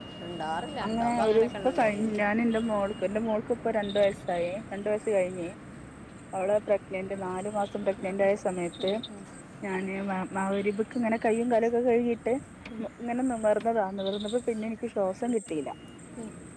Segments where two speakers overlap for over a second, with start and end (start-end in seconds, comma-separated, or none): 0.8-2.2